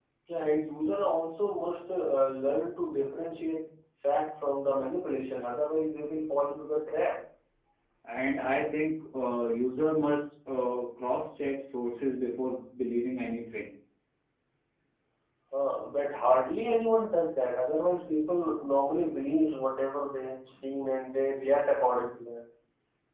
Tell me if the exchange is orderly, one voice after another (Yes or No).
Yes